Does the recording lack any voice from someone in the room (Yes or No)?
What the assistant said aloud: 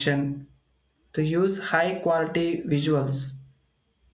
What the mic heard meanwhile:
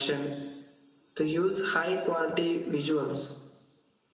Yes